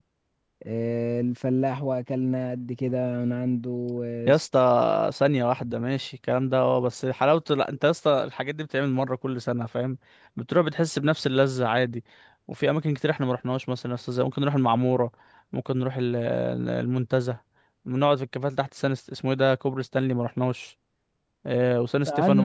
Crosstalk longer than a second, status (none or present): none